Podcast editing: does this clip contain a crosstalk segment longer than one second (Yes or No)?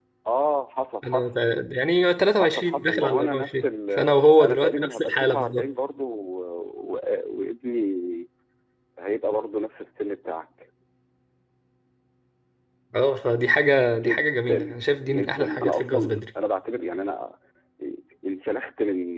Yes